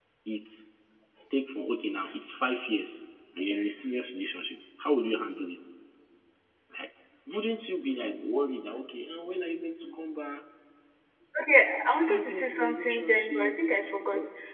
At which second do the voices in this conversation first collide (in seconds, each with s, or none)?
11.8 s